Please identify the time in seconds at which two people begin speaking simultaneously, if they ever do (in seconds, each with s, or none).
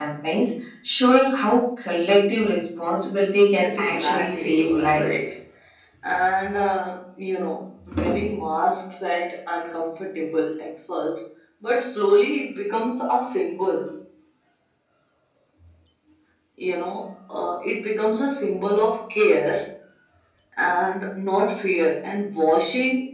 3.5 s